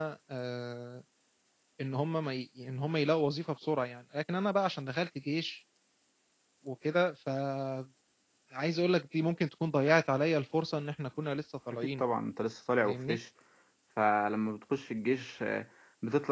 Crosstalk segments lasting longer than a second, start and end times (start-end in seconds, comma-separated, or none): none